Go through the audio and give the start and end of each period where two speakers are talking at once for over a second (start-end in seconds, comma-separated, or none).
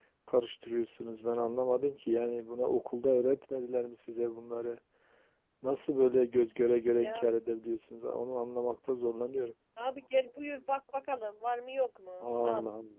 none